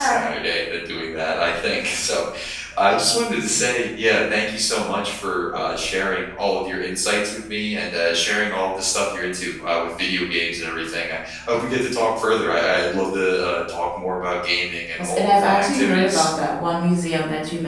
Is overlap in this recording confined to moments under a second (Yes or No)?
No